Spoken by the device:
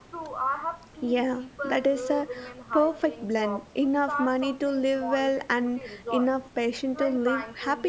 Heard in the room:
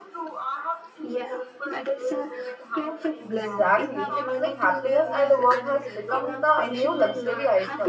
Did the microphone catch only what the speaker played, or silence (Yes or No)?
No